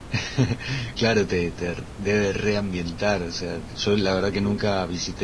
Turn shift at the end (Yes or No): No